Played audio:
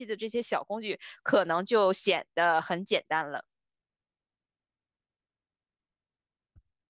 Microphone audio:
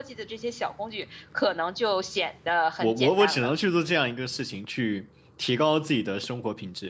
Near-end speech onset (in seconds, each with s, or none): 2.8 s